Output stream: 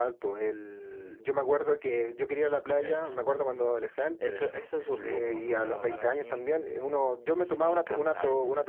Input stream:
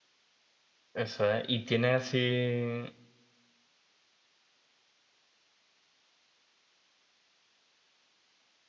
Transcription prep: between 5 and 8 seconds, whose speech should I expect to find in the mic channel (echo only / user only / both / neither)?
neither